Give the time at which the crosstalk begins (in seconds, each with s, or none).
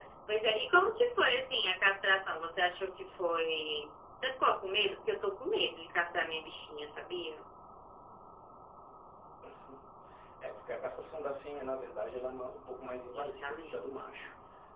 13.1 s